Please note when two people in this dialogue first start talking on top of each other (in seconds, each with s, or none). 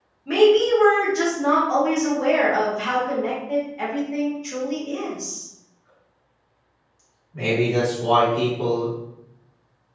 none